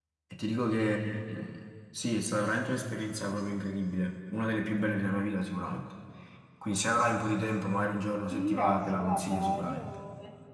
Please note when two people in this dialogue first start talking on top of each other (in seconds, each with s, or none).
8.3 s